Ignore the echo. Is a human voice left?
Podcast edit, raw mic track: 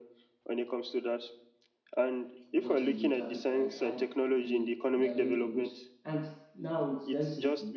Yes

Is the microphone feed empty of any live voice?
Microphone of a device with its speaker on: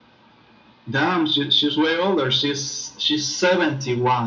Yes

